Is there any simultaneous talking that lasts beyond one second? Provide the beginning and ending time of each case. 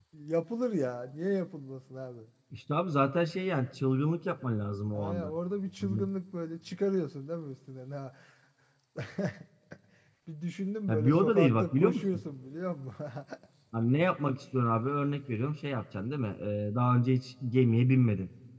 10.9-12.2

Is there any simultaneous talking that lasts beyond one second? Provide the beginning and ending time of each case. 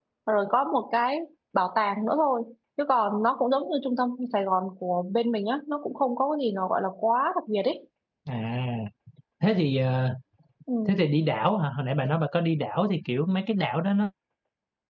none

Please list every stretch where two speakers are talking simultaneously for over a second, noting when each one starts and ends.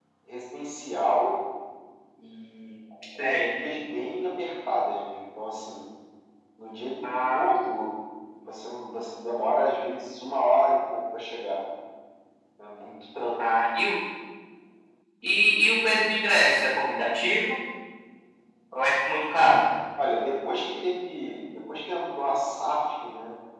none

